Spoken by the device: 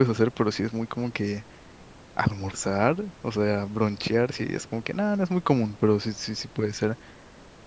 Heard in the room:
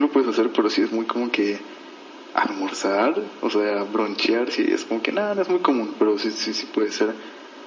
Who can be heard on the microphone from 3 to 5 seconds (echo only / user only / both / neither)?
echo only